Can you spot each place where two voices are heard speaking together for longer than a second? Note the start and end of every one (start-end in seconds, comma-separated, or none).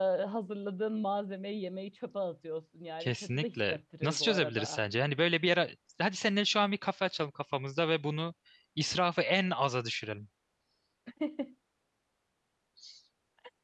3.0-4.8